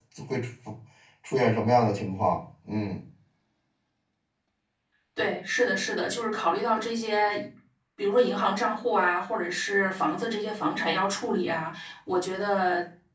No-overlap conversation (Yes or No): Yes